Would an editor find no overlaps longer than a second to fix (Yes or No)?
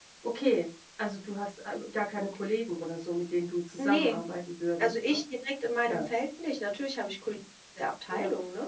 Yes